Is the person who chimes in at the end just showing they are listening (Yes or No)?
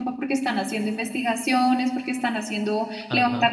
Yes